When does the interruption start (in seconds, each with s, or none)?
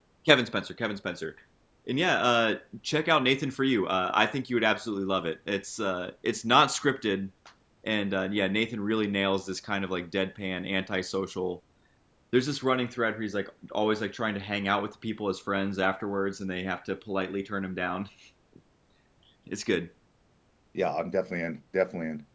none